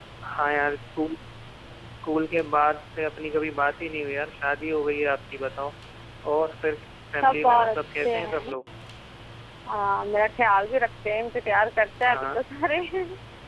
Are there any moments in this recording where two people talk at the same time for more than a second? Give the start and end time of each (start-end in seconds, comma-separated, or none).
7.2-8.5